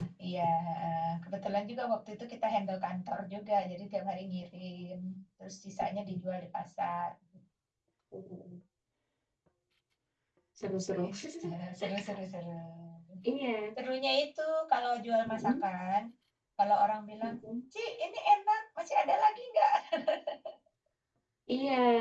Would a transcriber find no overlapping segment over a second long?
Yes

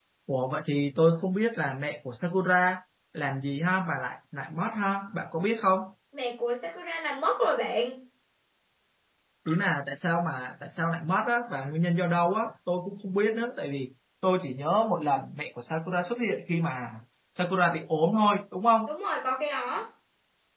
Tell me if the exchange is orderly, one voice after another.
Yes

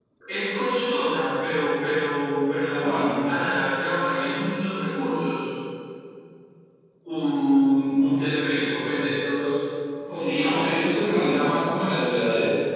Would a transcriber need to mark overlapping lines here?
Yes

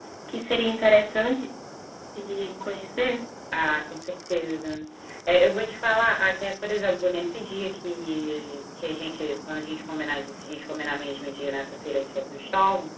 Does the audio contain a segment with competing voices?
No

